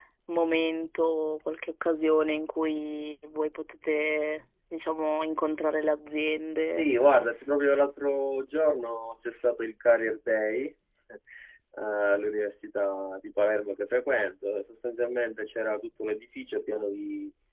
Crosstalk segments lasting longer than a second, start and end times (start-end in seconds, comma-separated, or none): none